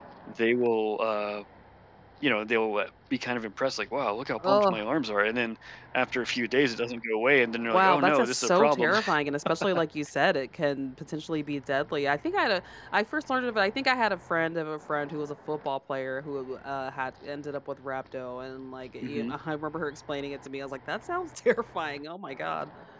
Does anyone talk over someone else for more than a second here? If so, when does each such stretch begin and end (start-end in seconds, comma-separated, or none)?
7.7-8.9